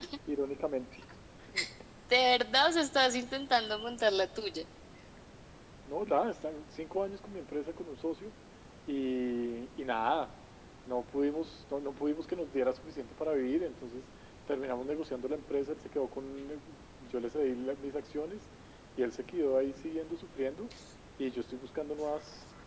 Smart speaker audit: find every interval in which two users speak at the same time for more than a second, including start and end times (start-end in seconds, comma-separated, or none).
none